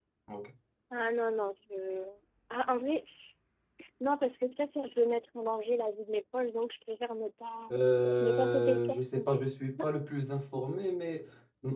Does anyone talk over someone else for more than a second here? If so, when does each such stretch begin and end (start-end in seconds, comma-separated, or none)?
8.2-9.4